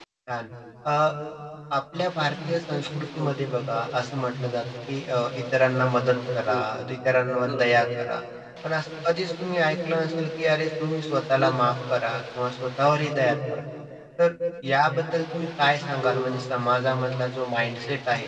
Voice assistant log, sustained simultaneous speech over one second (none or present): none